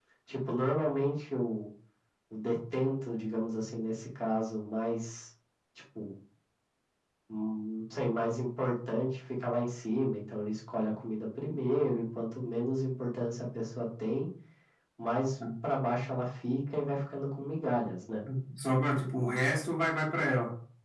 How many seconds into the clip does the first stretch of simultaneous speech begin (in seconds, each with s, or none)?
none